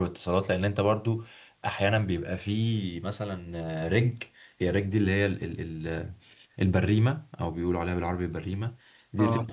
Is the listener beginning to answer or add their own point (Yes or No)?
No